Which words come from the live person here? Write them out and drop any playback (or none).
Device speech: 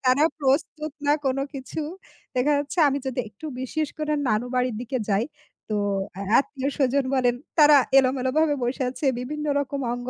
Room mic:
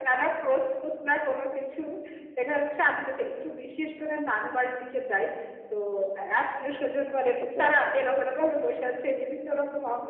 আচ্ছা, আচ্ছা।